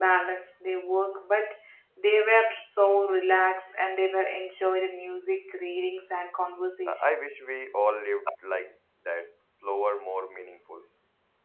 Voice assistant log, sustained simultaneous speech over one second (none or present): none